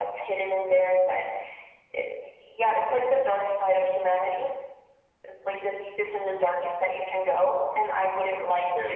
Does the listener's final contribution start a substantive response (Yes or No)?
No